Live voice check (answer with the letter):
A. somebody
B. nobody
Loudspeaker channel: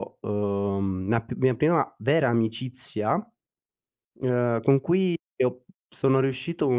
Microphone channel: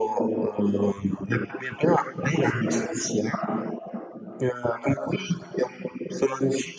A